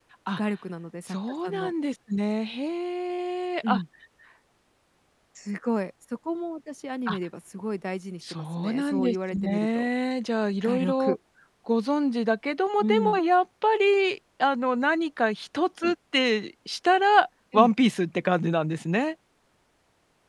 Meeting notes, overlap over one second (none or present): present